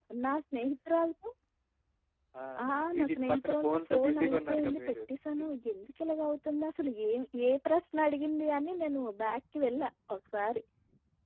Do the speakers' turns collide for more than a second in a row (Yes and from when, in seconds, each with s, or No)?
Yes, from 3.0 s